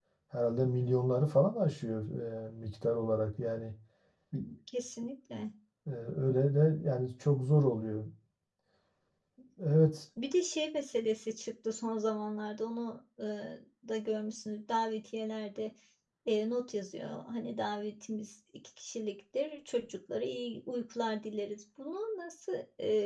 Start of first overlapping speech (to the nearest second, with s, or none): none